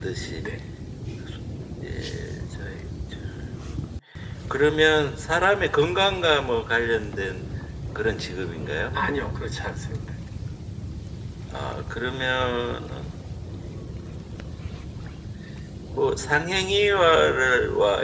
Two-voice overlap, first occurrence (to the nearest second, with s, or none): none